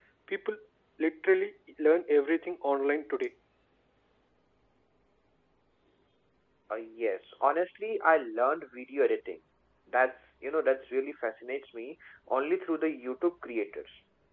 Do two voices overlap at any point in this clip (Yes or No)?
No